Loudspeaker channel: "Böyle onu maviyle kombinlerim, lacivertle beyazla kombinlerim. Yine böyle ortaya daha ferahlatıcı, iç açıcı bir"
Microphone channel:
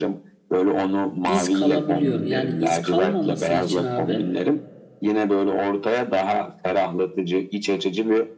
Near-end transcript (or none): iz kalabiliyor. Yani iz kalmaması için abi.